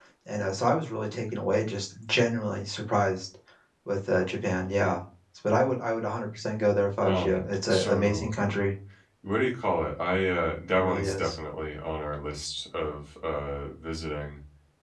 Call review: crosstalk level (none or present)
present